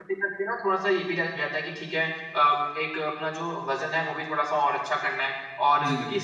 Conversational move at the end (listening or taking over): listening